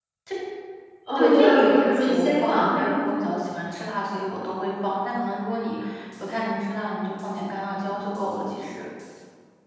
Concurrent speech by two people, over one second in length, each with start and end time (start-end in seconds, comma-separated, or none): 1.1-2.9